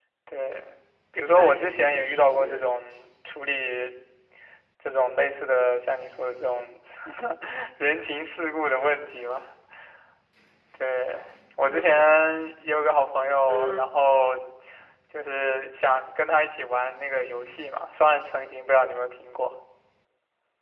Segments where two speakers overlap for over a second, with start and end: 1.4-2.7

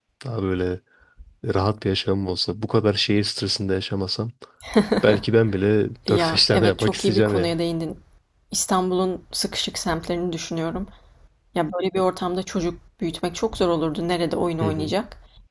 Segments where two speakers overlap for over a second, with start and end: 6.1-7.5

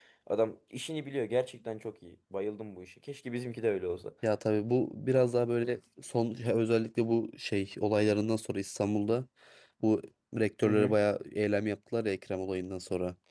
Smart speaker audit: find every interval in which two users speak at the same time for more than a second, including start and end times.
none

